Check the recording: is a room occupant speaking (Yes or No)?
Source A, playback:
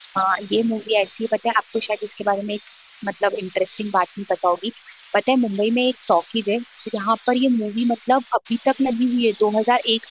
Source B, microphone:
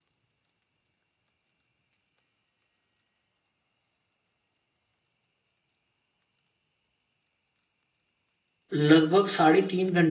Yes